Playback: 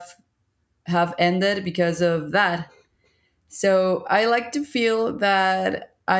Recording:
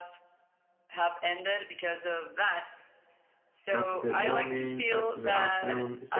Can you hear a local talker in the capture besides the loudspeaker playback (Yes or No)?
Yes